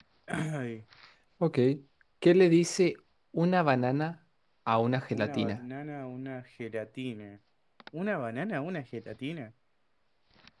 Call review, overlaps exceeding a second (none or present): none